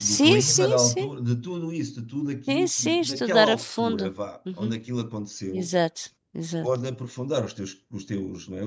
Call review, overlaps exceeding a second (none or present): present